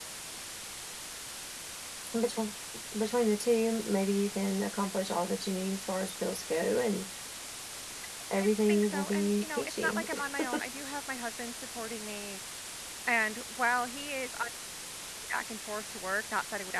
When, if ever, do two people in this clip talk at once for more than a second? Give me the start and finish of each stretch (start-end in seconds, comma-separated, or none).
8.4-10.0